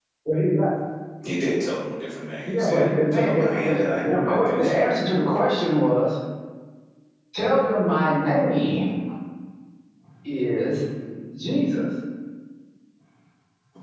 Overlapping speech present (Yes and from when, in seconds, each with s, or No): Yes, from 2.5 s